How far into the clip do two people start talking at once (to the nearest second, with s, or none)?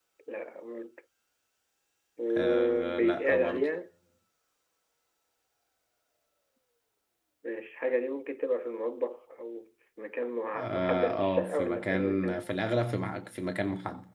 2 s